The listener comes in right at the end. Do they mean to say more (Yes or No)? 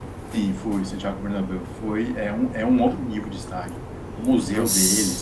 No